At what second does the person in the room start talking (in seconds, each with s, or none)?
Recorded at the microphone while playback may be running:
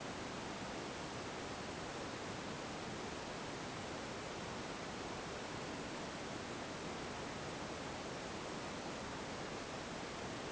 none